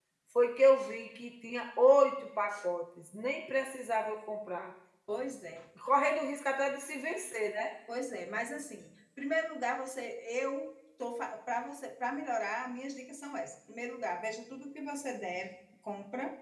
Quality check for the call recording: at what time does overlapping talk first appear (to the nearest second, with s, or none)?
none